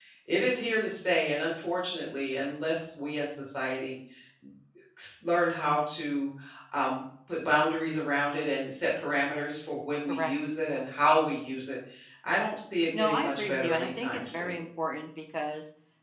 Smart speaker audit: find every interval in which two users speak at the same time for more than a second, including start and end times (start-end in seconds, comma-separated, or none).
12.9-14.6